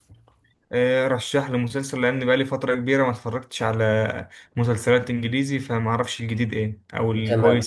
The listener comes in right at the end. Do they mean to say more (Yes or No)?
Yes